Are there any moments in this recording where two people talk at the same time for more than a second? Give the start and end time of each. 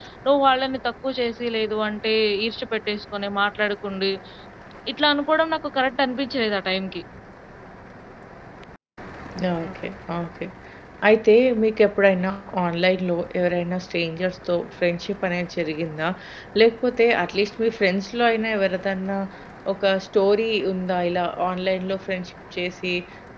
none

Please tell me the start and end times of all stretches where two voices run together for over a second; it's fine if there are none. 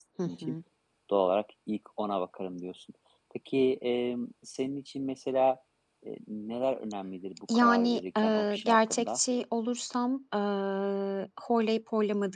7.5-9.2

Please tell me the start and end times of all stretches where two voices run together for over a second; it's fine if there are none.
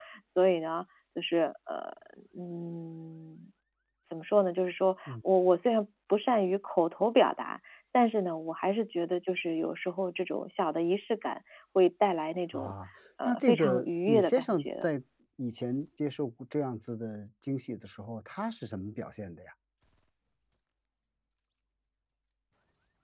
13.2-14.8

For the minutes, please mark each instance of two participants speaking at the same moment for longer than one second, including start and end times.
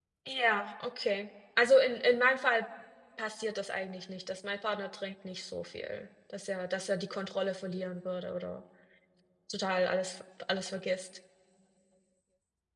none

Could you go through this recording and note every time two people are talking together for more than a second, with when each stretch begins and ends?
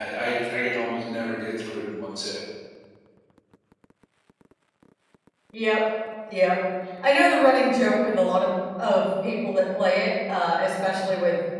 none

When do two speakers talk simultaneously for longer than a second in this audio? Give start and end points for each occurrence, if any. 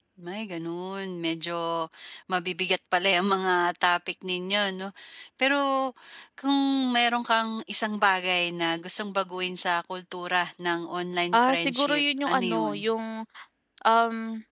11.5-12.8

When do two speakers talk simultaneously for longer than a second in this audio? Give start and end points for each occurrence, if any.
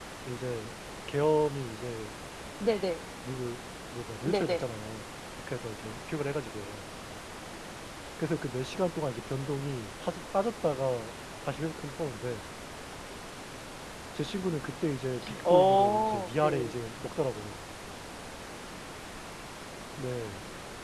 15.4-16.7

